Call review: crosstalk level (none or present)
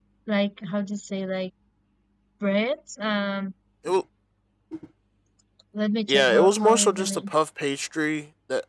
present